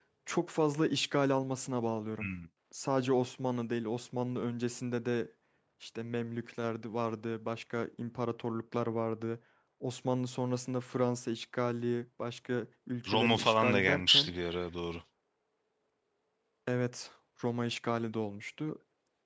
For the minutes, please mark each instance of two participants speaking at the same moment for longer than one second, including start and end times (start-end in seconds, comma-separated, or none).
13.1-14.3